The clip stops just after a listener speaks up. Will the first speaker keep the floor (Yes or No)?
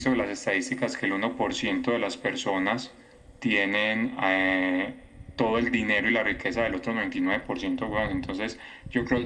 Yes